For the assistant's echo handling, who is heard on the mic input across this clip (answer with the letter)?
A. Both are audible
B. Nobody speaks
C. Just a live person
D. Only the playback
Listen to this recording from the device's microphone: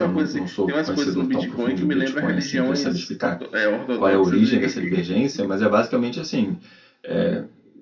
A